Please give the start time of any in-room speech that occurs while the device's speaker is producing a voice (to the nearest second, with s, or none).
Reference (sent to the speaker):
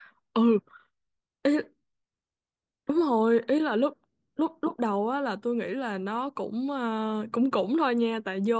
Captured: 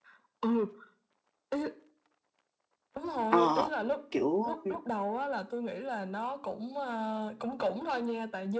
3 s